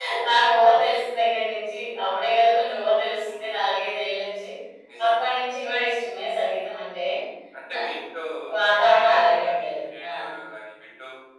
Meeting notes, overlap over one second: present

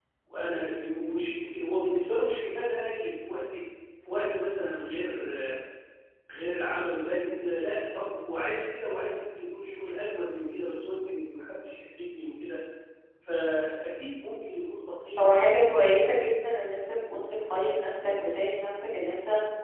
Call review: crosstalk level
none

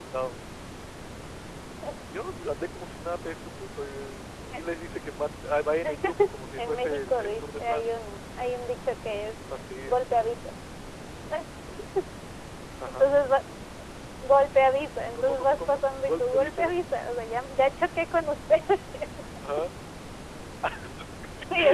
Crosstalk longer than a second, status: present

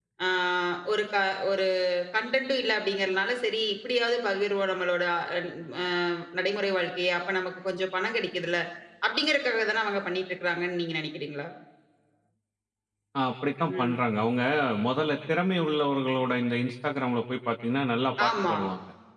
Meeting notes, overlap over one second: none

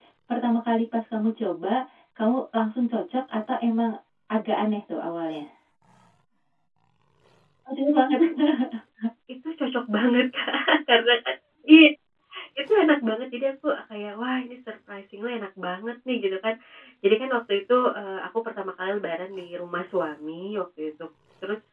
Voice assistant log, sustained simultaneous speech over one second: none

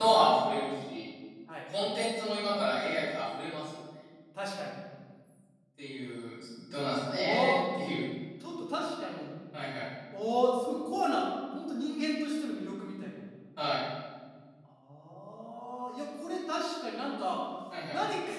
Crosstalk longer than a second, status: none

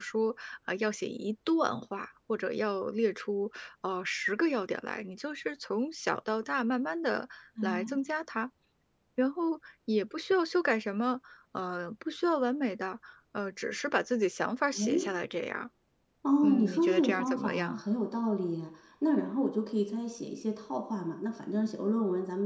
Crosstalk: present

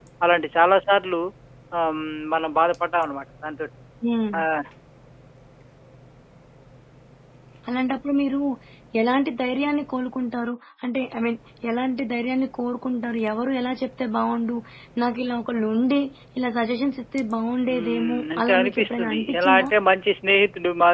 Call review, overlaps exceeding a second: present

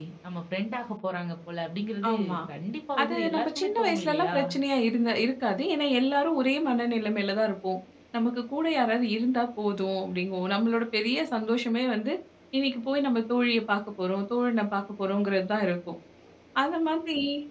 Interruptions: present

